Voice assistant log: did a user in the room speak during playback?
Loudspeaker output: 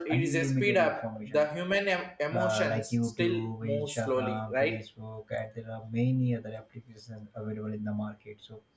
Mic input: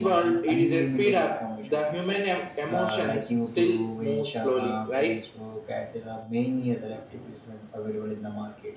No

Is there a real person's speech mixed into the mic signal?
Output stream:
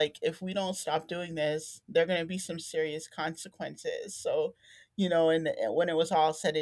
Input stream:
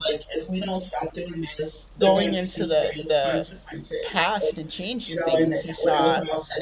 Yes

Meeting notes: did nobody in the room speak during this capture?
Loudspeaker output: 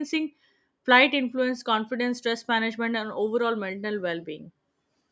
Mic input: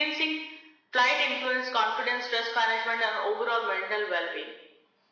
Yes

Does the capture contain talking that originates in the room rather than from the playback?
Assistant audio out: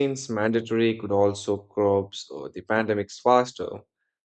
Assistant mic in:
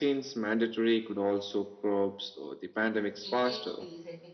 Yes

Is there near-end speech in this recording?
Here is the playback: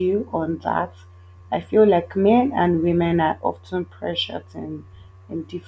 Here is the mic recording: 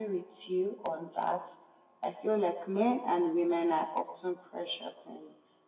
No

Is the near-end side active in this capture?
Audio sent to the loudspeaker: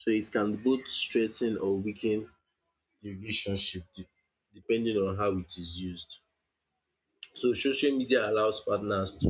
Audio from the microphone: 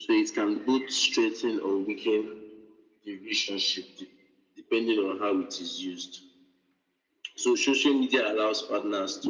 No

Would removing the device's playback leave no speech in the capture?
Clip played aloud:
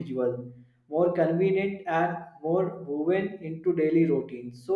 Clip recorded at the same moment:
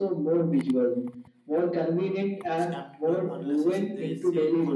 No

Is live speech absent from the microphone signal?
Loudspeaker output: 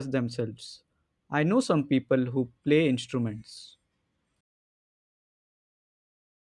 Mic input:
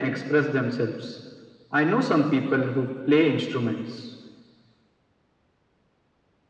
Yes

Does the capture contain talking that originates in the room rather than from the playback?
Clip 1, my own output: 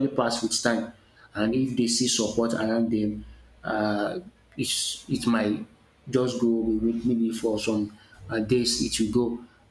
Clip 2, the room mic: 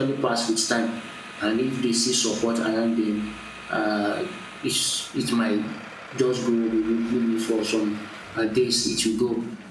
No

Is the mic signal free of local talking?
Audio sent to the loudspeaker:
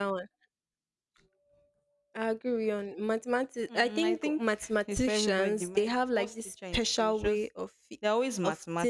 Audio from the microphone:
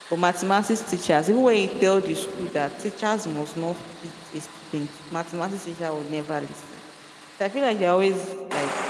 No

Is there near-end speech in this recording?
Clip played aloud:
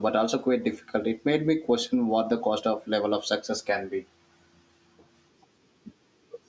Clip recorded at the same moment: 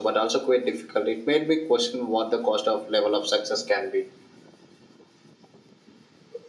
No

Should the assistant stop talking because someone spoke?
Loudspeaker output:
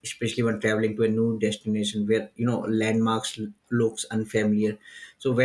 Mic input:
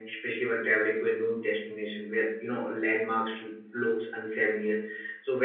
No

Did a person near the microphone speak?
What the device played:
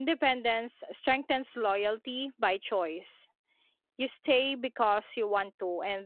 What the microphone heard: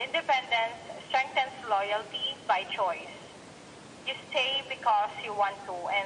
No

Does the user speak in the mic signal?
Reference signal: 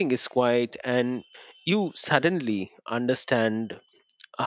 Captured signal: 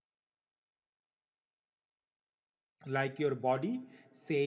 Yes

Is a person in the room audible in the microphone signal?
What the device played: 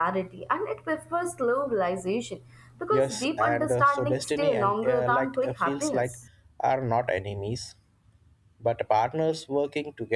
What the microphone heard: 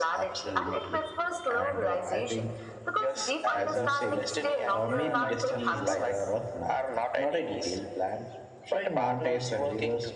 Yes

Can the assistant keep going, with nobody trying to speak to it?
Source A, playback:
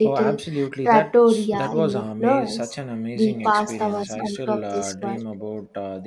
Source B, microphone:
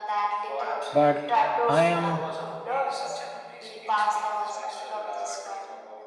No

